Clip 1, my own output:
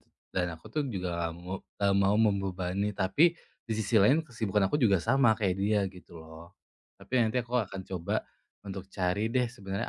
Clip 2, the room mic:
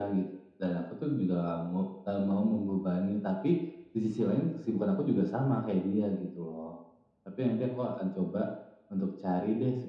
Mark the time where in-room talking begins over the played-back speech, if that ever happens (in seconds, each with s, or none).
none